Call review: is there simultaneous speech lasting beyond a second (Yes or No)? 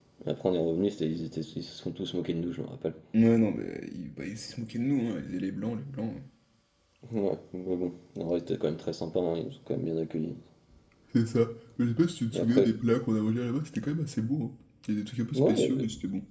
No